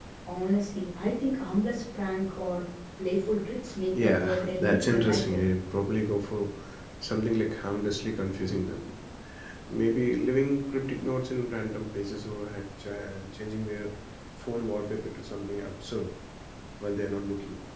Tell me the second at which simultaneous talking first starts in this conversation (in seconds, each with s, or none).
3.9 s